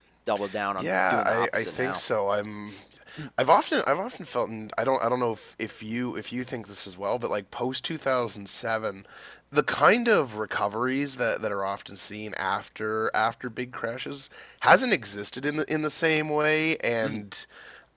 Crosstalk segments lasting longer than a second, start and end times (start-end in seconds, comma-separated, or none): 0.8-2.0